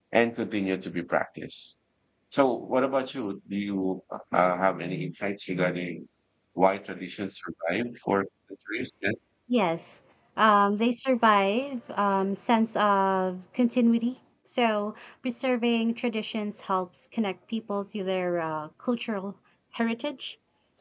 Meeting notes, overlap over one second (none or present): none